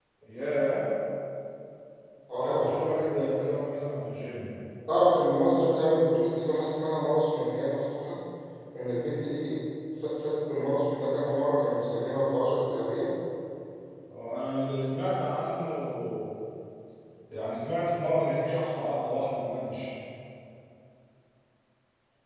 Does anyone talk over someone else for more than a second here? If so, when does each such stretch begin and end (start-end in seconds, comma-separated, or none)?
none